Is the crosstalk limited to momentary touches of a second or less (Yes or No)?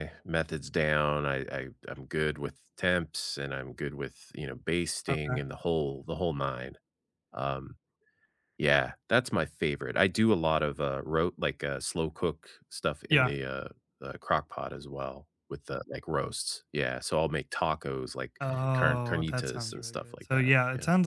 No